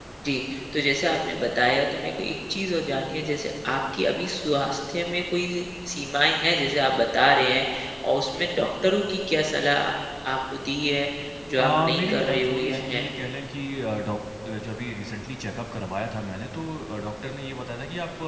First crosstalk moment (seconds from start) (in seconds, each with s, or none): 11.6 s